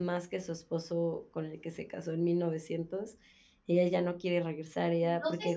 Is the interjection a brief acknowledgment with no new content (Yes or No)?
No